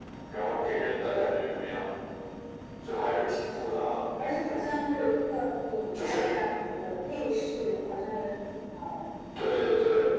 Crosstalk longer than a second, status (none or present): none